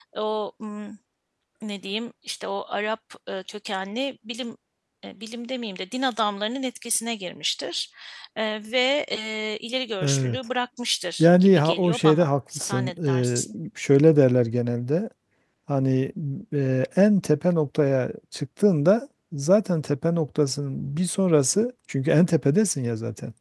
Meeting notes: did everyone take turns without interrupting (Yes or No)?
No